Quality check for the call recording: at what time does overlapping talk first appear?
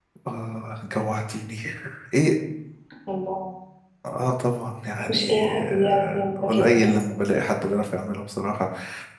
5.1 s

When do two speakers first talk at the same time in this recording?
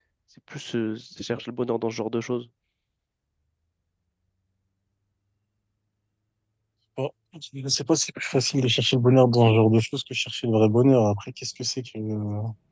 none

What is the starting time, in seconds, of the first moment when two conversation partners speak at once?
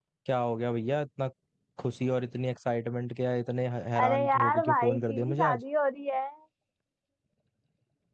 4.0 s

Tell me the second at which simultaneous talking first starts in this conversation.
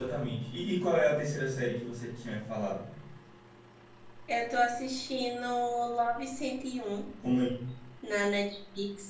none

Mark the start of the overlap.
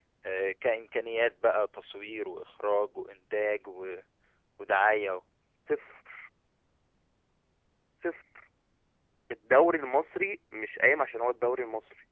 none

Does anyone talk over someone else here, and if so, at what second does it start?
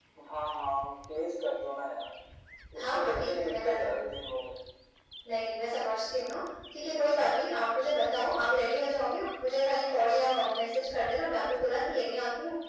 2.8 s

